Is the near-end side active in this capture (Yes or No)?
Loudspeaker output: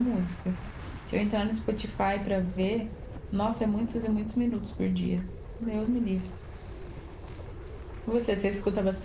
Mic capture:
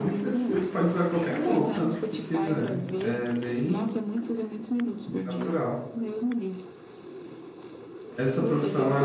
Yes